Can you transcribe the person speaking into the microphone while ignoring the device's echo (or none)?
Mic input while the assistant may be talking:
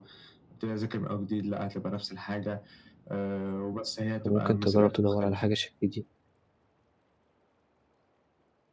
فممكن تجرّب تدوّر على حاجة شبه دي،